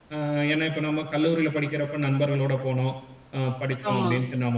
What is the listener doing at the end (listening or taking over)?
listening